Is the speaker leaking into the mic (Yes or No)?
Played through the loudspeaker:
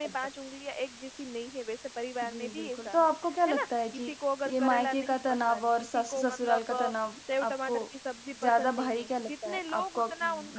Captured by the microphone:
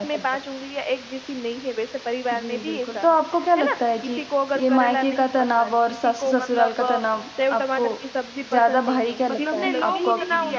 Yes